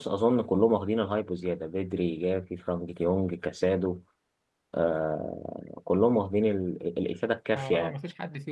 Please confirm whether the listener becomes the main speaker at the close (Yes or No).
Yes